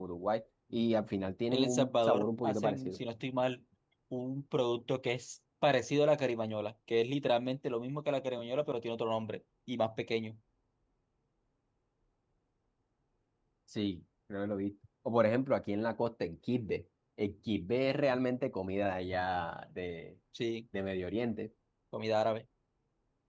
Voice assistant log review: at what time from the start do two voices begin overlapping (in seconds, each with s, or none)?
1.5 s